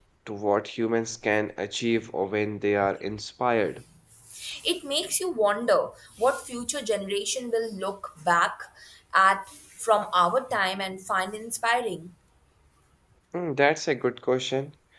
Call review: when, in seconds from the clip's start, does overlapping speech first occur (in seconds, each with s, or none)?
none